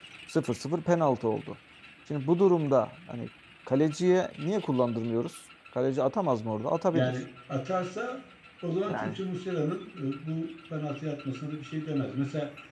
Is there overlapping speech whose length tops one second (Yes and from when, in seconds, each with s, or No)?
No